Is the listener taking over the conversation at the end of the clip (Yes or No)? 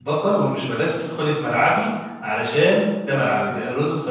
No